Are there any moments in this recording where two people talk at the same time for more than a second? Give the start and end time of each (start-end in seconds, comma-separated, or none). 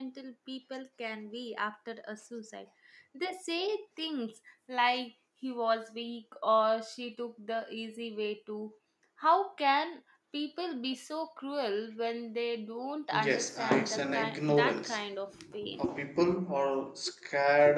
13.1-15.0